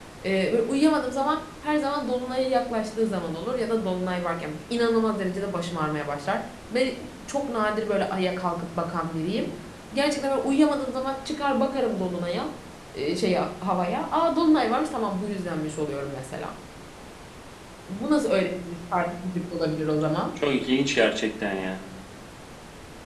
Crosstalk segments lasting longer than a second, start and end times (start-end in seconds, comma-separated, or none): none